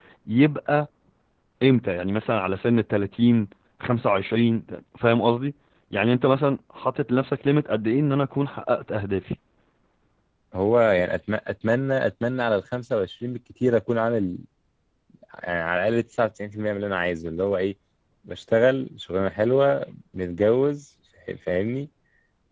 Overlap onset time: none

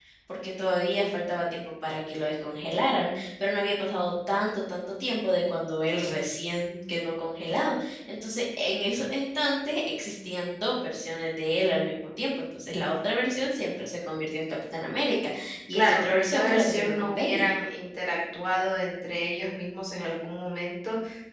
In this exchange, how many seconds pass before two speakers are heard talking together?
15.7 s

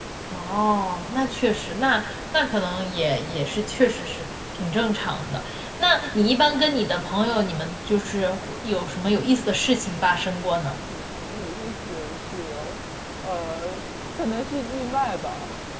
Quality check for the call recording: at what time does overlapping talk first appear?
none

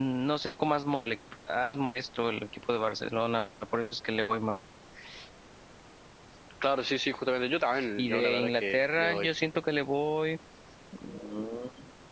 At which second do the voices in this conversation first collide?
7.7 s

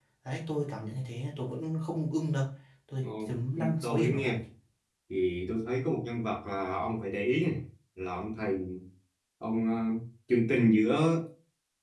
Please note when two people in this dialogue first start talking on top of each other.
3.0 s

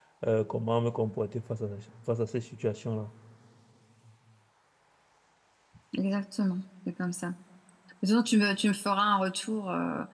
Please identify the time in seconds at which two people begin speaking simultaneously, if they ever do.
none

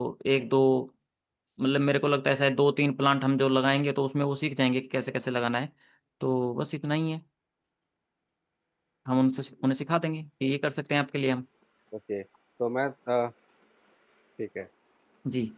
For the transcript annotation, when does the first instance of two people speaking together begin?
none

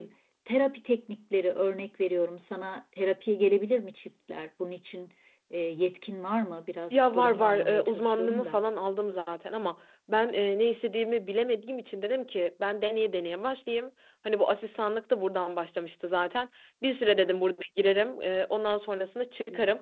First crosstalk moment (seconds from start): 6.9 s

